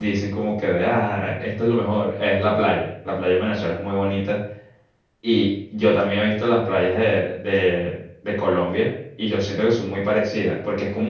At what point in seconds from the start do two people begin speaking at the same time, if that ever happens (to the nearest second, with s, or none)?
none